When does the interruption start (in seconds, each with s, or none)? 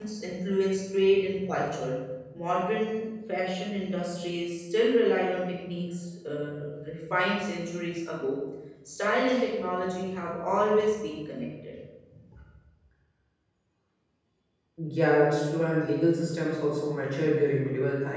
none